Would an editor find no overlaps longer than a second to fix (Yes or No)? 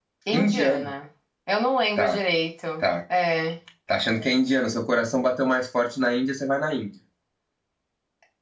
Yes